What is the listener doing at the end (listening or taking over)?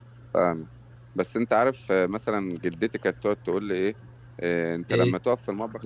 listening